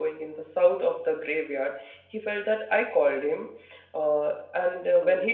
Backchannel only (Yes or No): Yes